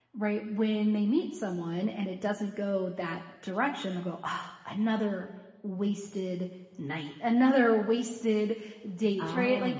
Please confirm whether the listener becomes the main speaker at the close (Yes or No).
No